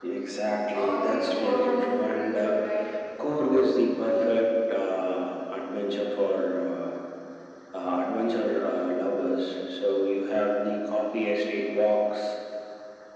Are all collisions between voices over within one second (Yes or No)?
No